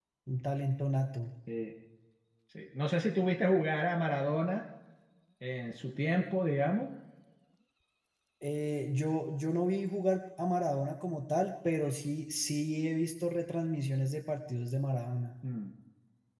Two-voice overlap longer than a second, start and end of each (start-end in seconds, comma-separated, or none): none